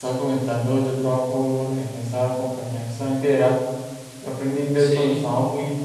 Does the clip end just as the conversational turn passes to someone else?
No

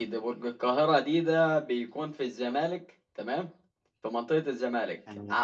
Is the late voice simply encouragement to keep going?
Yes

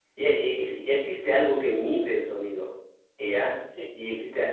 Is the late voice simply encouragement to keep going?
Yes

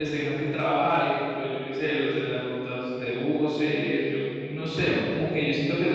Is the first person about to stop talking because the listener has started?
No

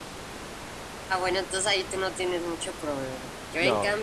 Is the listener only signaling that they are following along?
Yes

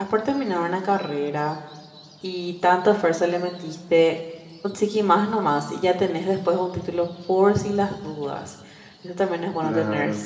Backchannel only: Yes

